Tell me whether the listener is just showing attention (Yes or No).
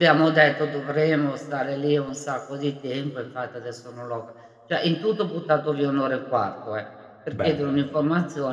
Yes